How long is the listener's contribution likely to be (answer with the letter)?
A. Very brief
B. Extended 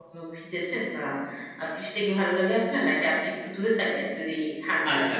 B